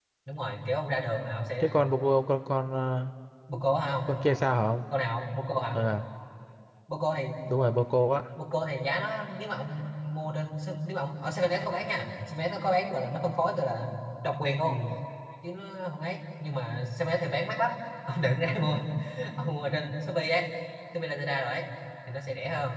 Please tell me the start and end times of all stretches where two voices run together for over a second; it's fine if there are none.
none

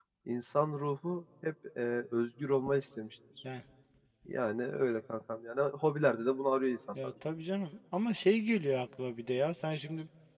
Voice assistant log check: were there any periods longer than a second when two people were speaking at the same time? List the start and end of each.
none

